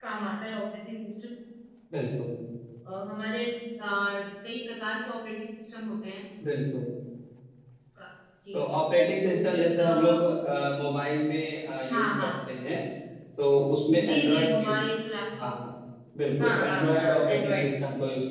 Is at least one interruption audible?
Yes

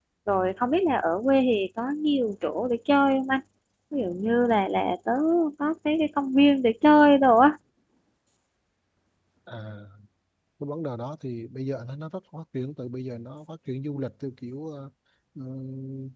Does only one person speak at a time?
Yes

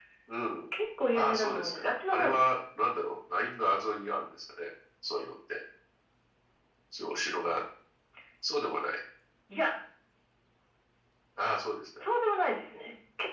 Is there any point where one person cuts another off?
Yes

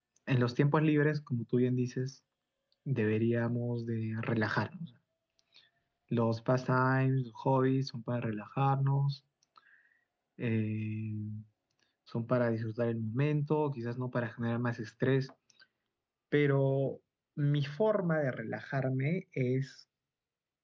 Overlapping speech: No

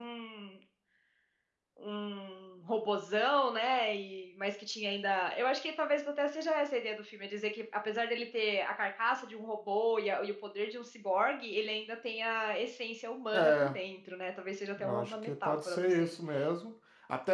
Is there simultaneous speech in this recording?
Yes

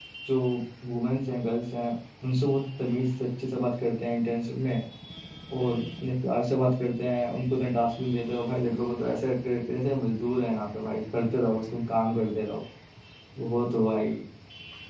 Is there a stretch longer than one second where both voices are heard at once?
No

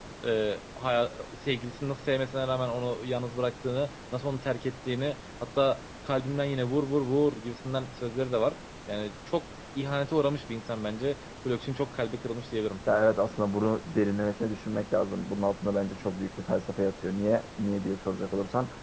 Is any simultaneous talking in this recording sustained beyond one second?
No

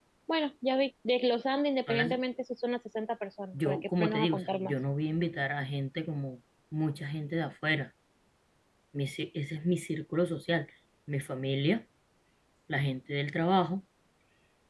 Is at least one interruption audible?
Yes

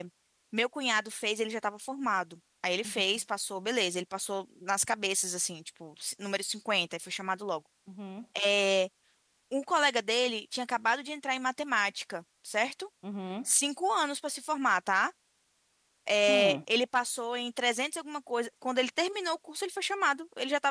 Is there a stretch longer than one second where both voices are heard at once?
No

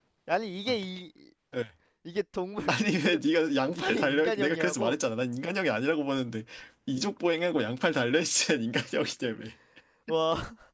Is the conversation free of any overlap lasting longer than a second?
No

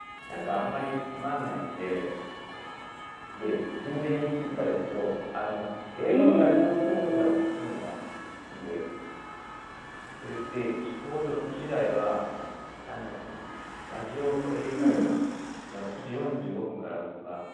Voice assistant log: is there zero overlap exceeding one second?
No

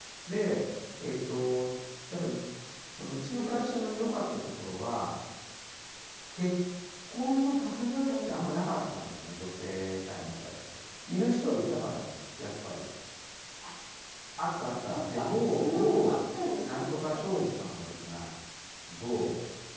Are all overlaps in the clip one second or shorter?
No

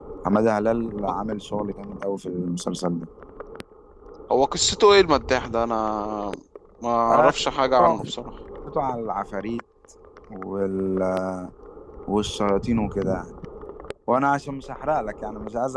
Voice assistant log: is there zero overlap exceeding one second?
Yes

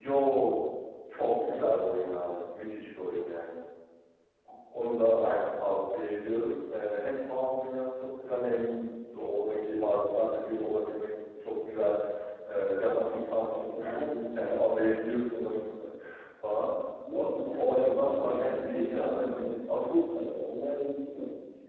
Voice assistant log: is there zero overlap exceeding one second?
No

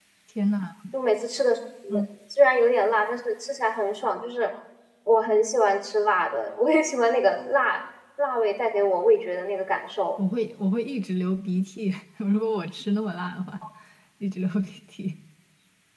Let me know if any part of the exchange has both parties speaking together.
No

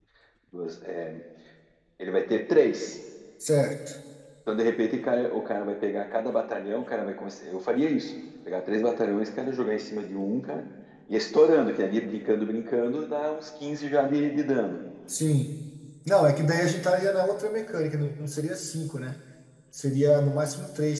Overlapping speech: No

